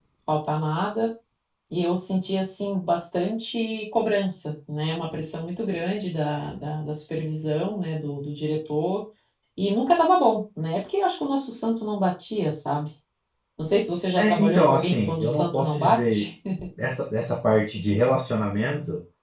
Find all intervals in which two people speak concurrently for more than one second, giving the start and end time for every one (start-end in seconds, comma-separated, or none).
14.2-16.3